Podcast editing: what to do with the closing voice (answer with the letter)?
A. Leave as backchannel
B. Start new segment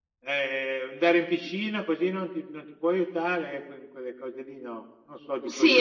B